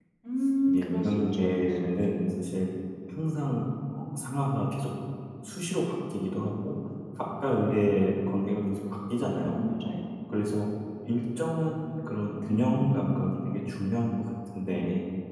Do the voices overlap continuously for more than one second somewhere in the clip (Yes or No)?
Yes